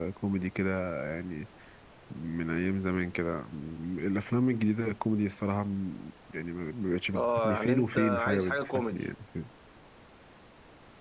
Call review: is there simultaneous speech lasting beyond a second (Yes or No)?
Yes